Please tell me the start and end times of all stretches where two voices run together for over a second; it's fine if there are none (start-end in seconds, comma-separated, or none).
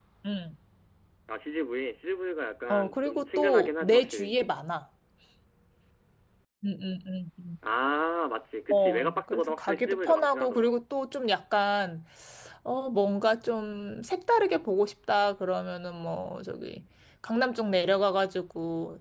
2.7-4.4, 8.7-10.7